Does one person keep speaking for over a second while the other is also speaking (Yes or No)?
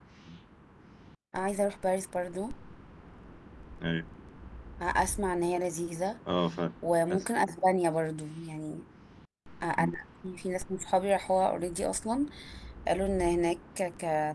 No